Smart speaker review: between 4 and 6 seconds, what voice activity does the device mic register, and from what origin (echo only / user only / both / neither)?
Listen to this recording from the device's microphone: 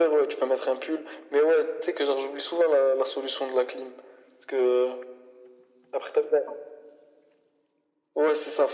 echo only